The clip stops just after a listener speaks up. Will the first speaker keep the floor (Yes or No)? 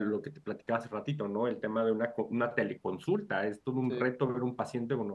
Yes